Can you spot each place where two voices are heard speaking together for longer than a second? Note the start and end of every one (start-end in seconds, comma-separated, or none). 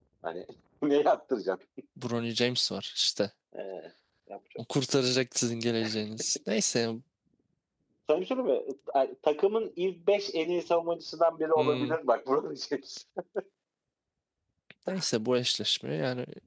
none